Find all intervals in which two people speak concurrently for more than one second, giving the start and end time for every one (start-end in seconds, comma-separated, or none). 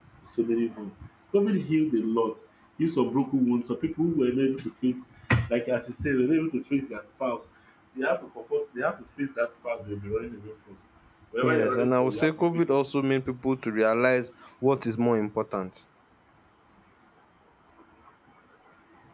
11.4-12.7